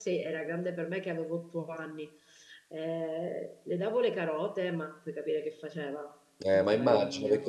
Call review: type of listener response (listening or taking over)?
taking over